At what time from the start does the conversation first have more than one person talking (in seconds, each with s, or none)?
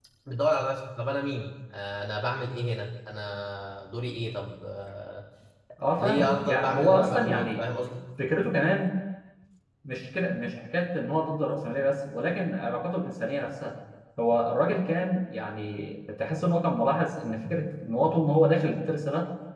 6.0 s